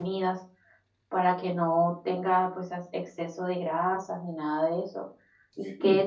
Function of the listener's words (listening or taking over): listening